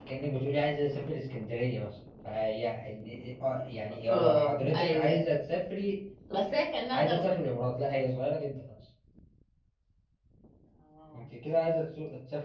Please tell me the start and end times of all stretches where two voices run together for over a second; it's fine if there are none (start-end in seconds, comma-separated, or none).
4.1-5.3